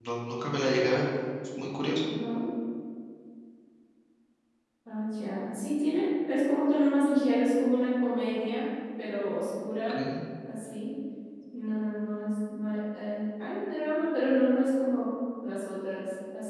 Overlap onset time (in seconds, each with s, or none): none